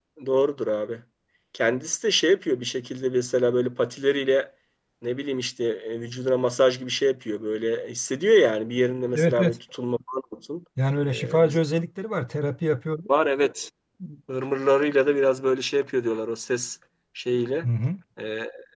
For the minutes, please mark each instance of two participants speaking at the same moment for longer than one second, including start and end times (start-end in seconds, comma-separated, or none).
none